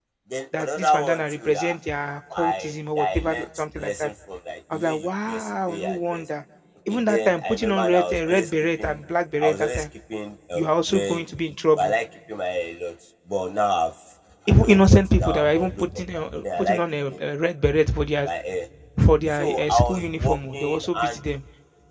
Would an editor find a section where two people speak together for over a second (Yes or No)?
Yes